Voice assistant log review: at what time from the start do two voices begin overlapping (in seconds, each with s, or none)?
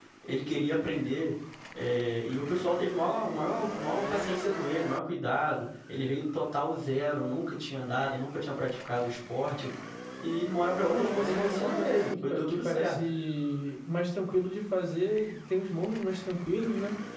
10.9 s